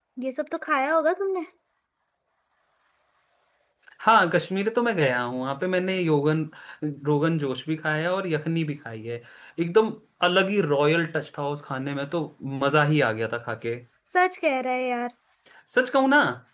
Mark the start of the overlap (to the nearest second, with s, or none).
none